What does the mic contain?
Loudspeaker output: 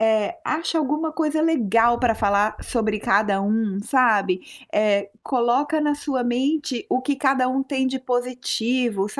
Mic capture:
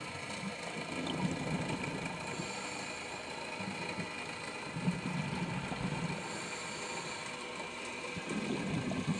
neither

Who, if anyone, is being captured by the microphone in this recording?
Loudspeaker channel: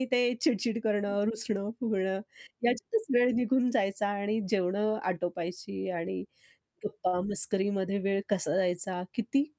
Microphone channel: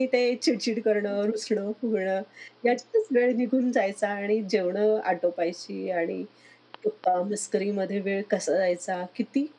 echo only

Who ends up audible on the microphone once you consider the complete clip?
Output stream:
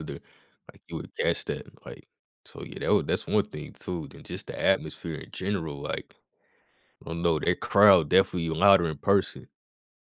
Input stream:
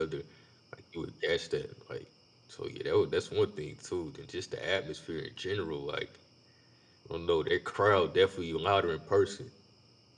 echo only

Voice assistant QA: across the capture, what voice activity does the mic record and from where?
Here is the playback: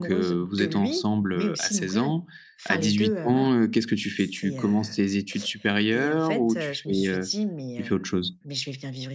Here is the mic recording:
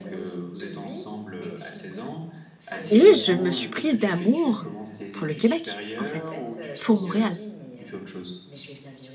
both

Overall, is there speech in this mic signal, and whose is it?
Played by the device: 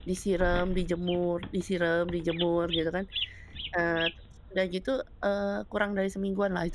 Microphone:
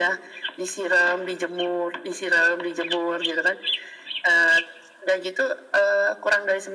echo only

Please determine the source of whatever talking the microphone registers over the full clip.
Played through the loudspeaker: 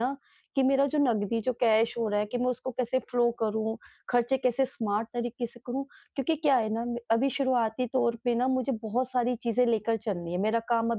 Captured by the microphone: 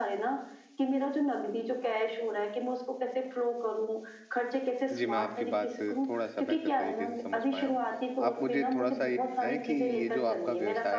both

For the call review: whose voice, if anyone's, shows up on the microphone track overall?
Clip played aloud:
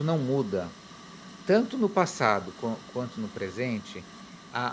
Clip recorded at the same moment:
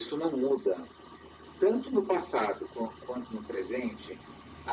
echo only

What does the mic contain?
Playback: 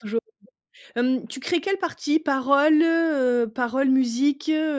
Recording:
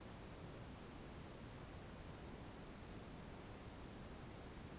neither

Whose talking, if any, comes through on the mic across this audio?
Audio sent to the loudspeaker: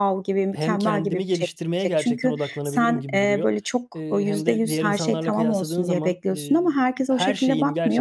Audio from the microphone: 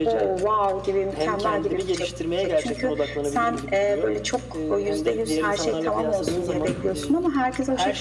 echo only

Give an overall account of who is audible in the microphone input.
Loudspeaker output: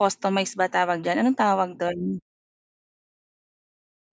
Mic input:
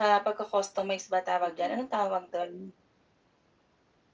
both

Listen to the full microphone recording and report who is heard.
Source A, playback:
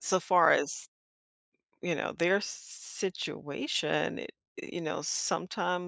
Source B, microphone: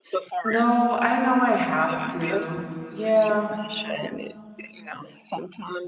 both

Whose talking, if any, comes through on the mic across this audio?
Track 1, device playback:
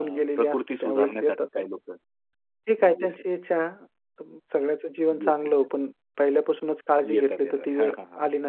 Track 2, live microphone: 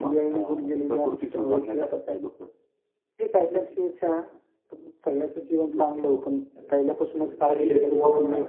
both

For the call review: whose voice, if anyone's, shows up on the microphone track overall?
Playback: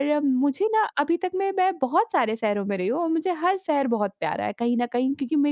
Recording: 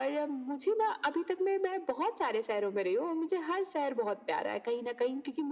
echo only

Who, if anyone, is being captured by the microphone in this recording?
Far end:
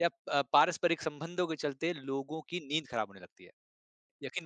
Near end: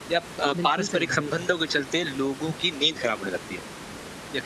both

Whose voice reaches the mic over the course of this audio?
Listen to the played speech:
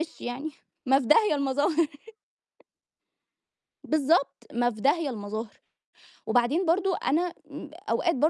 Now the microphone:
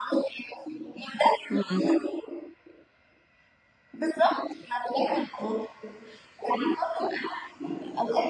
both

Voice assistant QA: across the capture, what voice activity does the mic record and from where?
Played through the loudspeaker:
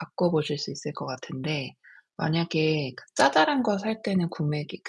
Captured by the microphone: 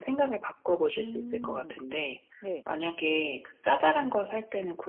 both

